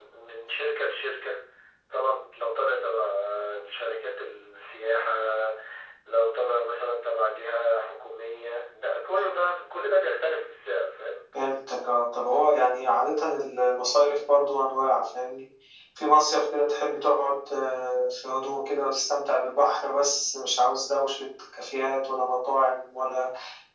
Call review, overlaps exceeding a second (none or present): none